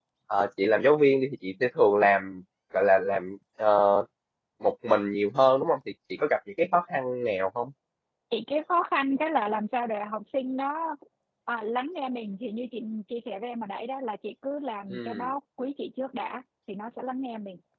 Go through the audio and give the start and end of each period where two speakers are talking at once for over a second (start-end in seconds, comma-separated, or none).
none